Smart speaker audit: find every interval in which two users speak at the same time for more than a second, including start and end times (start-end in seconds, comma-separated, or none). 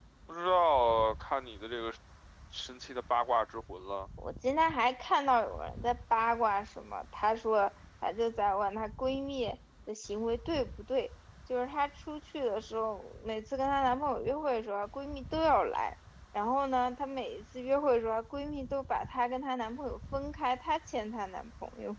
none